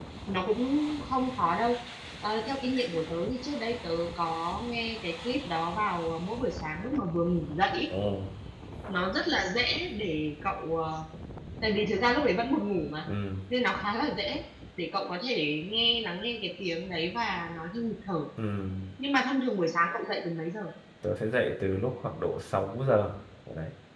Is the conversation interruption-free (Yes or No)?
Yes